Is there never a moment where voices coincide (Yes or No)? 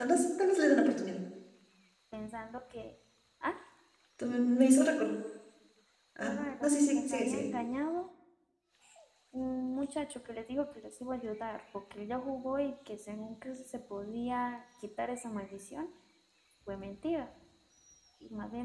No